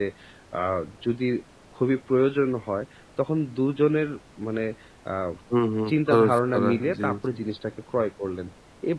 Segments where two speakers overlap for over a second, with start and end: 5.9-7.2

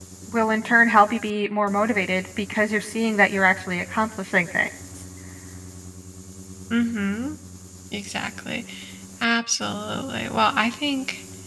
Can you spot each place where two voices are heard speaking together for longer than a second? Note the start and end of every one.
none

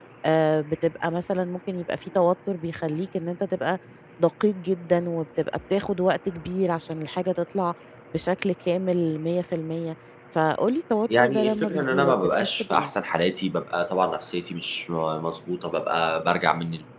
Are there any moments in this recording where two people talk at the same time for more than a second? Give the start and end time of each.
11.2-12.9

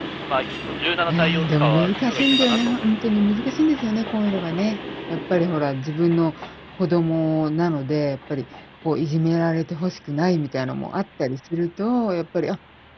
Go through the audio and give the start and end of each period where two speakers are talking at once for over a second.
1.1-2.9

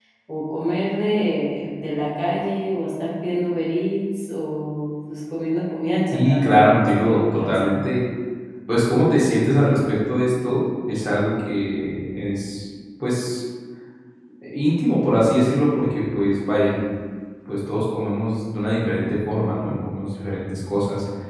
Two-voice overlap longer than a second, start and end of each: 6.1-7.8

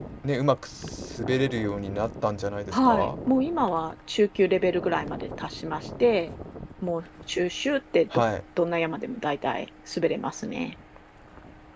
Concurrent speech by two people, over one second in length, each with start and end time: none

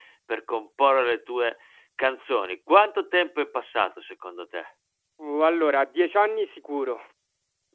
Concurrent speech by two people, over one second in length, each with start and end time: none

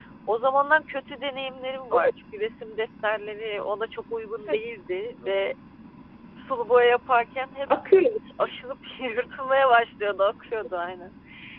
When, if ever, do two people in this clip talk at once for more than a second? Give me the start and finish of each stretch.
none

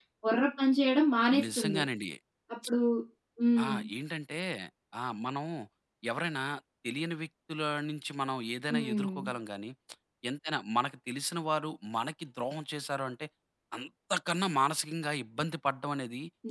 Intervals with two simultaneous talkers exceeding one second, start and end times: none

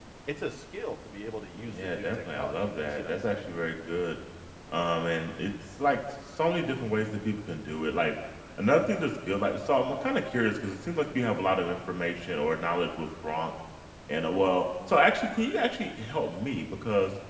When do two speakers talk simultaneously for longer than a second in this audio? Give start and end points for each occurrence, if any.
1.5-3.5

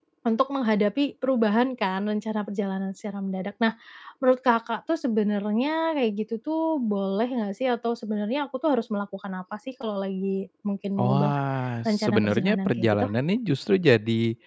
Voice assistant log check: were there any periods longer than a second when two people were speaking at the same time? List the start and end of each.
11.8-13.1

